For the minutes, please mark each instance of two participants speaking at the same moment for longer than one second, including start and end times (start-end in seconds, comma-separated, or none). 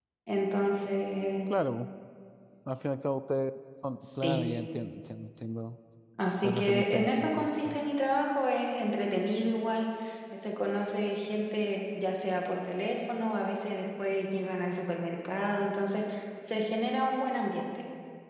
6.4-7.8